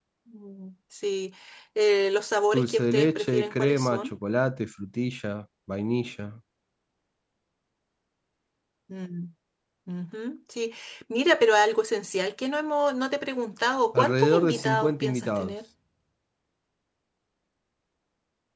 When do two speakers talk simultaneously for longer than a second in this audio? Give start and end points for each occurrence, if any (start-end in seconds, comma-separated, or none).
2.5-4.1, 13.9-15.5